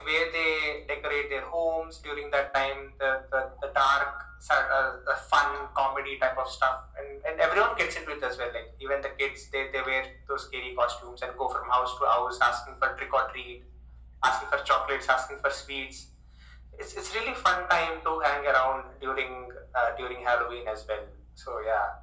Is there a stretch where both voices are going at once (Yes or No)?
No